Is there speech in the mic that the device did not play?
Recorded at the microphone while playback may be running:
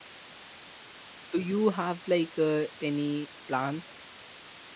Yes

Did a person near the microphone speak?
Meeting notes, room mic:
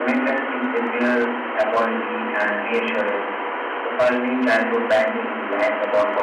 No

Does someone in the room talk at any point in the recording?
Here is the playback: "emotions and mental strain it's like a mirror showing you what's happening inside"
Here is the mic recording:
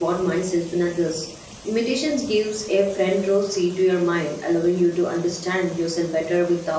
Yes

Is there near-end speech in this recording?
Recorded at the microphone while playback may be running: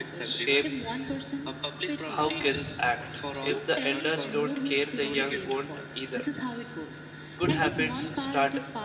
Yes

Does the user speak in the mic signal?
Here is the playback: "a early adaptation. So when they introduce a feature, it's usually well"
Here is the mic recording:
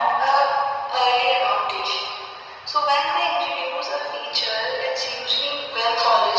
No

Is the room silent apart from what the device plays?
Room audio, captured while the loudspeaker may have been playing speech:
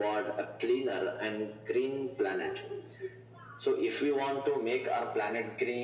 Yes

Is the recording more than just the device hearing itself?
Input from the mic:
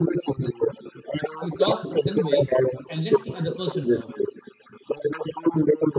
Yes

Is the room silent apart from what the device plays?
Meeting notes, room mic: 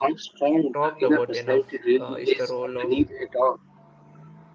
No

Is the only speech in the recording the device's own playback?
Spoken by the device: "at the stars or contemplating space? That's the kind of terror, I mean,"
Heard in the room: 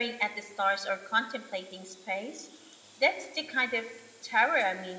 Yes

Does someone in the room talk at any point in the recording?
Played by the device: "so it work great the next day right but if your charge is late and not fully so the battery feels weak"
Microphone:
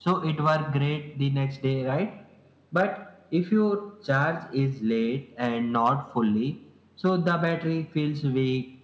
No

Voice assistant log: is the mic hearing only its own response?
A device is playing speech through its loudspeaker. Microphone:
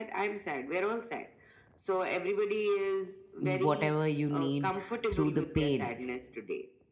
No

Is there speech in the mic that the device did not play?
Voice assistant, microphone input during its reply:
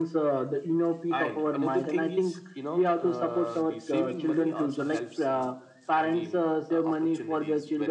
No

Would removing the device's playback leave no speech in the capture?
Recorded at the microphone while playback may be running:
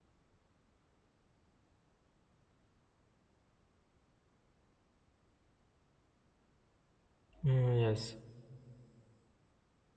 No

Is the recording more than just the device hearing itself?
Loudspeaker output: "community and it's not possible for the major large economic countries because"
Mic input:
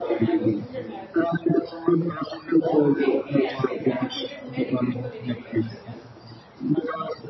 Yes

